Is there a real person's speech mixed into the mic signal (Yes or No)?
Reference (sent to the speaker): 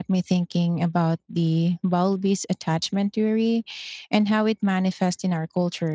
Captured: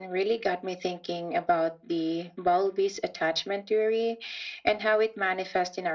No